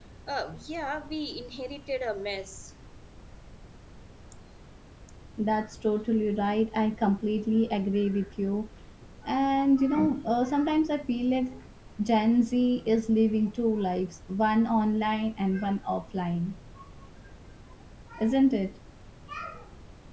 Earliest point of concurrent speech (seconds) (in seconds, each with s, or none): none